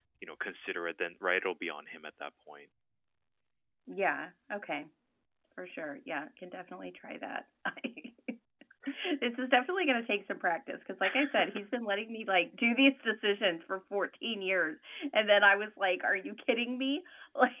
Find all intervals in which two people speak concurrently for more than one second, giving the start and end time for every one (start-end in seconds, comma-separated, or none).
none